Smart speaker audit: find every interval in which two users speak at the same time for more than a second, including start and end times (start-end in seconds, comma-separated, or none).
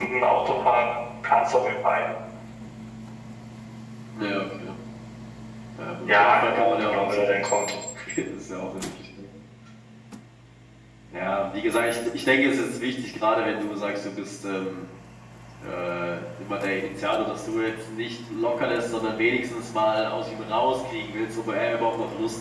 6.1-7.7